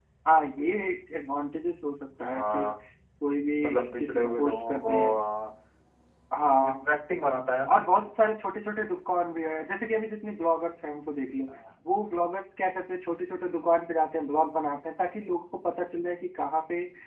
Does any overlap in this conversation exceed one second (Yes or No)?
Yes